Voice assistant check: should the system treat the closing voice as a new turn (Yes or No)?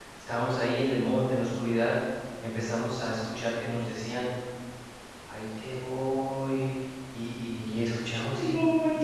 No